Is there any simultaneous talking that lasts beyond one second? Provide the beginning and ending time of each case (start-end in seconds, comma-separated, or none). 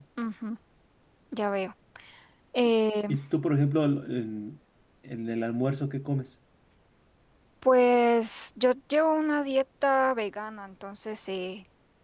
none